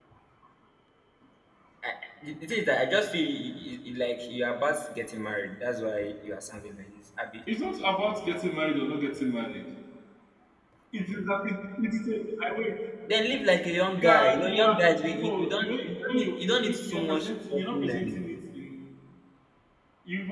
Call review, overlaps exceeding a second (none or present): present